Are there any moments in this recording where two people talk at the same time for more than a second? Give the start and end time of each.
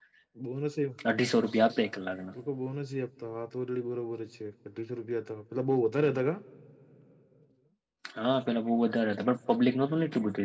none

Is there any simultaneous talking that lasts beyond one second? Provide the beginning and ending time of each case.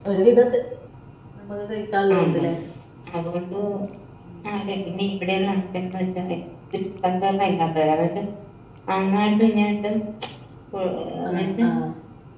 none

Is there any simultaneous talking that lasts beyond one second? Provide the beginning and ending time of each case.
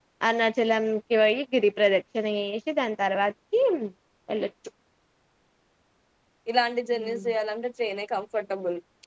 none

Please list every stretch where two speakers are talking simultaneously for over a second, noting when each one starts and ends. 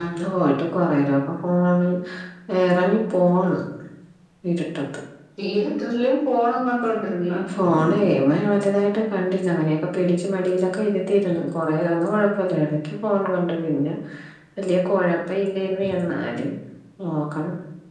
none

